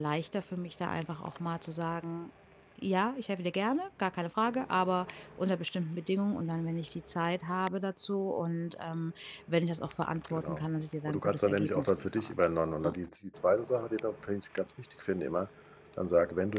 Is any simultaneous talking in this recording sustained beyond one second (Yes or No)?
Yes